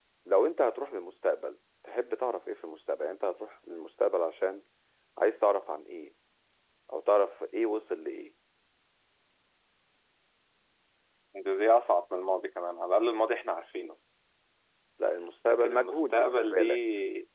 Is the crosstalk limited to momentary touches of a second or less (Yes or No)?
No